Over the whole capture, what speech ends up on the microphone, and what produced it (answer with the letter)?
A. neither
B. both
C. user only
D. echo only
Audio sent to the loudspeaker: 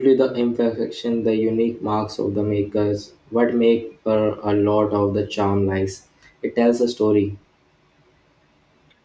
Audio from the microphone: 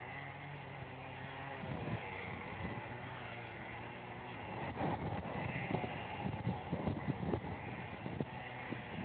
A